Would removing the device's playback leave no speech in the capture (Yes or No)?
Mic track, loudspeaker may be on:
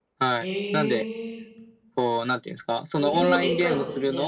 No